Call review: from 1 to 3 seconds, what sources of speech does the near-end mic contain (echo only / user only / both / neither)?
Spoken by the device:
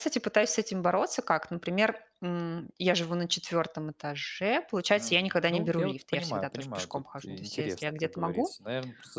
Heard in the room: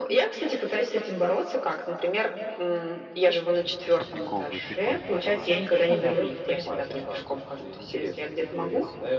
echo only